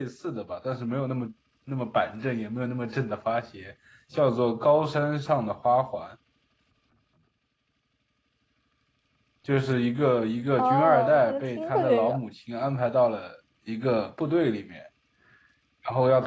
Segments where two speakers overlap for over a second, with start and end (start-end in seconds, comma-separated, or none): 10.6-12.2